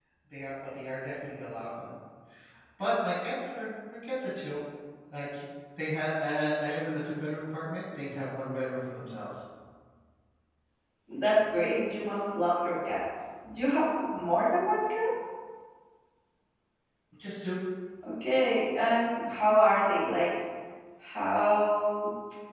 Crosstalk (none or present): none